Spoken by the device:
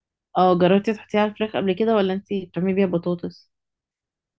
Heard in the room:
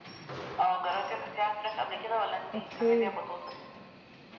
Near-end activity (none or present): present